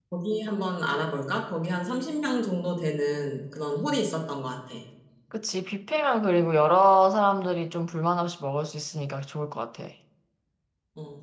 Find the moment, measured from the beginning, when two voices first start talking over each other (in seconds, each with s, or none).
none